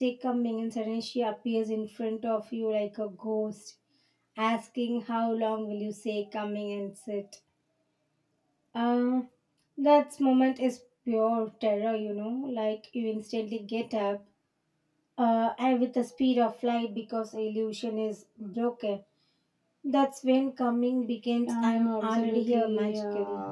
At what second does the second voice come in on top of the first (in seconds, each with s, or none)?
21.5 s